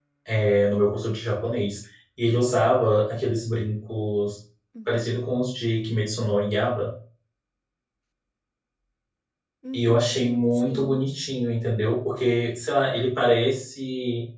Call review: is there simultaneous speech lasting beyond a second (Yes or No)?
Yes